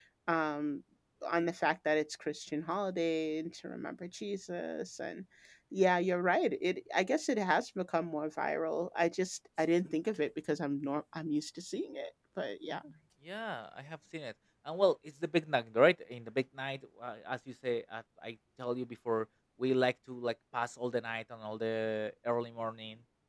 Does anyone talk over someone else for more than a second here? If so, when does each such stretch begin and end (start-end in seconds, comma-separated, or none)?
none